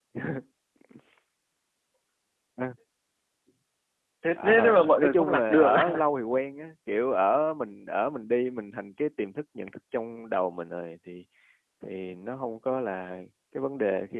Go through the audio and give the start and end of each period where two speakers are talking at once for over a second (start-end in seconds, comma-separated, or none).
4.4-6.0